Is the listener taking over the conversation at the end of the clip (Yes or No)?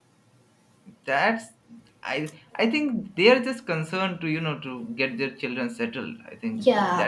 Yes